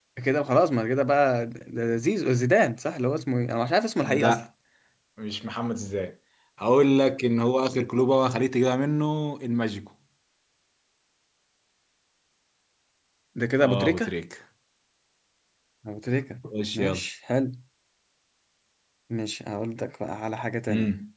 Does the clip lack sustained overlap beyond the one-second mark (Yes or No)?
Yes